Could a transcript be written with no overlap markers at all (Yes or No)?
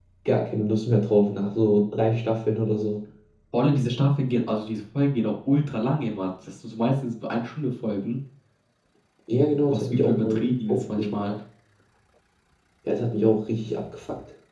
No